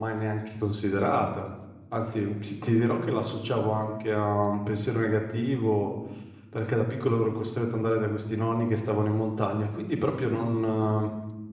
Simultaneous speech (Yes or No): No